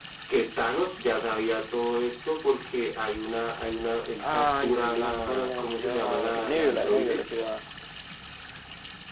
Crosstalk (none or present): present